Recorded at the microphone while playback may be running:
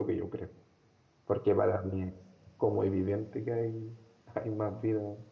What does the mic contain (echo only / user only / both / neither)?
user only